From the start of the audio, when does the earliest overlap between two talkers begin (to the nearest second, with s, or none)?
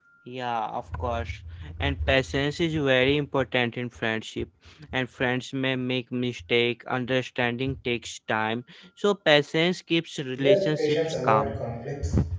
10 s